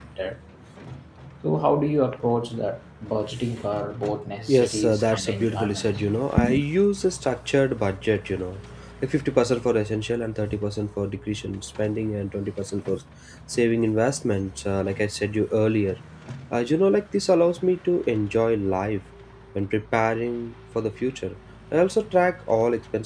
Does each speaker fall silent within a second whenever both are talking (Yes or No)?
No